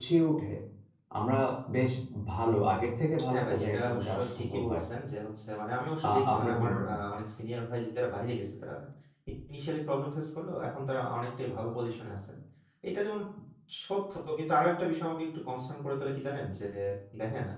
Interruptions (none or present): present